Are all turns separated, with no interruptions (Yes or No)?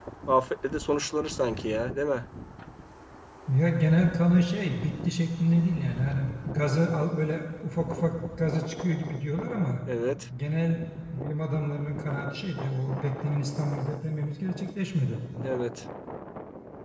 Yes